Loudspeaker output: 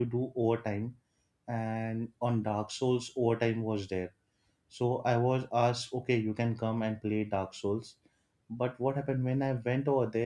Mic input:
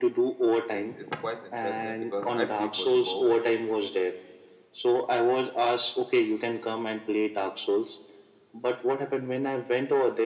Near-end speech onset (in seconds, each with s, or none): 0.7 s